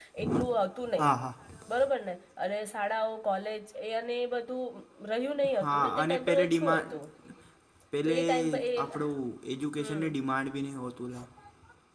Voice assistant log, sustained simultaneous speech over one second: present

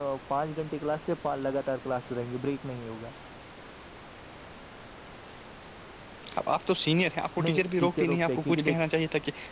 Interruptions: present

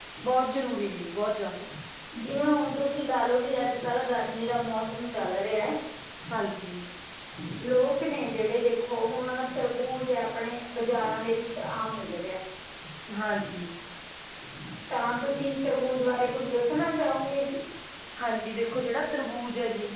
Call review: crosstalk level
none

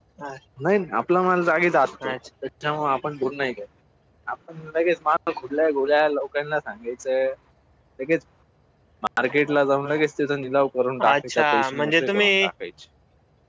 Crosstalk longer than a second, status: present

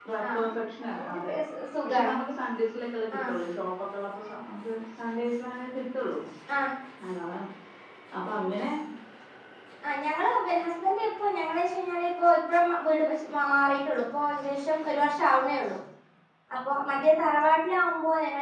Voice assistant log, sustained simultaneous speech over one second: none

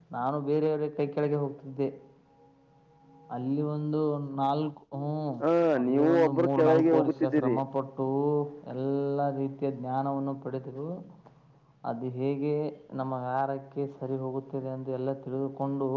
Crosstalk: present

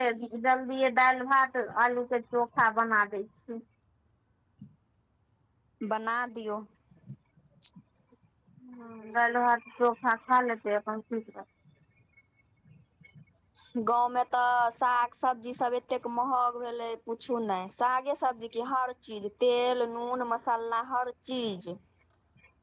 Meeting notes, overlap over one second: none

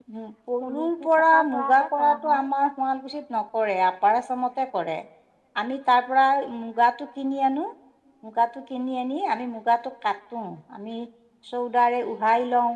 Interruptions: present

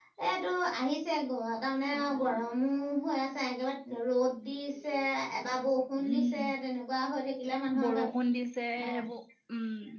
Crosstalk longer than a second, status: none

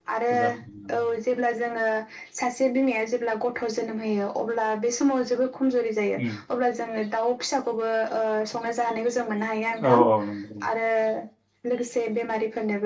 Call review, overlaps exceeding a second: none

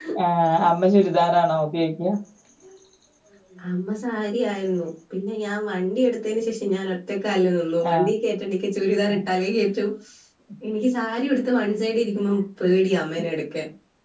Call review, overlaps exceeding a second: none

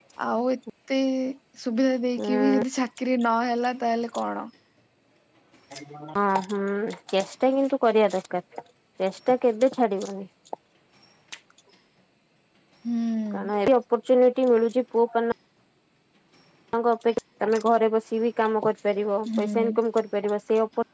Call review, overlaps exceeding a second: none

